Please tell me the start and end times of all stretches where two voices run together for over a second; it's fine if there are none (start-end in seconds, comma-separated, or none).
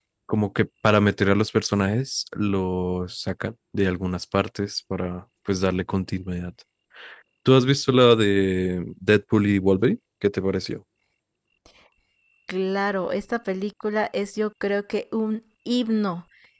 none